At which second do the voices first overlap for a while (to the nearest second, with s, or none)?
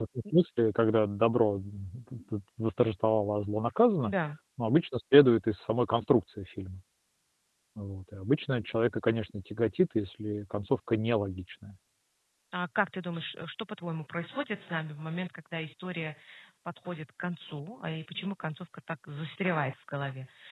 none